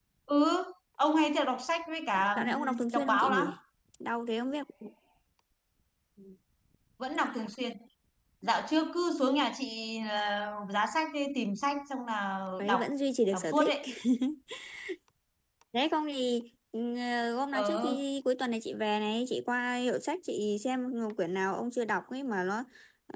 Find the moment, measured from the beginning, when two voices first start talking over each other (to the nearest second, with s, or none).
2 s